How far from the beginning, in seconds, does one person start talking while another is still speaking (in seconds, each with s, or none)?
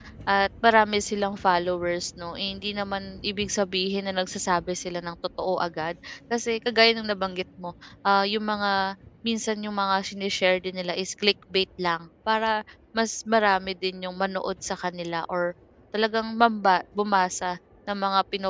none